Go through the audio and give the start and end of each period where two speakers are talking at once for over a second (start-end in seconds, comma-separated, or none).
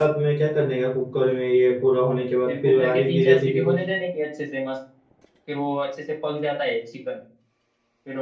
2.5-3.8